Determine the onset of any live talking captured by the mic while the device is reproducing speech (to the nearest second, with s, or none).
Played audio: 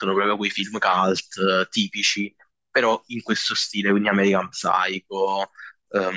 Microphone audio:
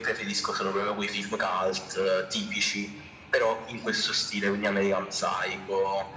none